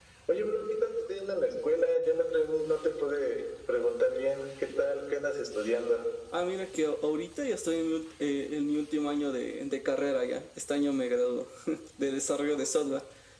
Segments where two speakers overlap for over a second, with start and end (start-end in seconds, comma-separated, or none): none